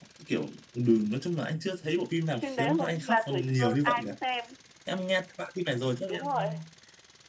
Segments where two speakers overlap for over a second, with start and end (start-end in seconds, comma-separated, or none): 2.4-4.1